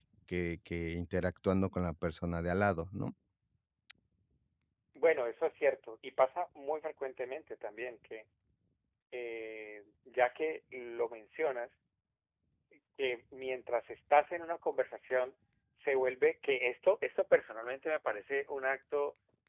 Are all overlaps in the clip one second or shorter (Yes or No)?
Yes